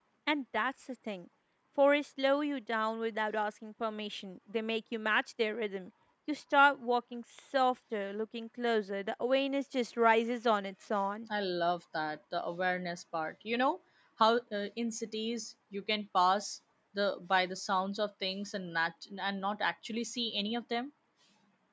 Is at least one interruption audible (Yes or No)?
No